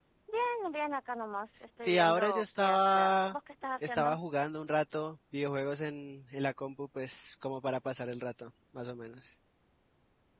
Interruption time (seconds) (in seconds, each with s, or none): 1.8 s